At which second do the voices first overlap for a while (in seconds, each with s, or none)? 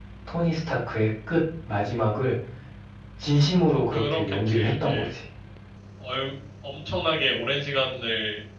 3.9 s